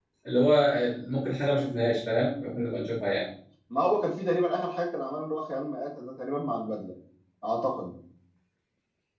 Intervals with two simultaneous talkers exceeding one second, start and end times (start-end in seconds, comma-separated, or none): none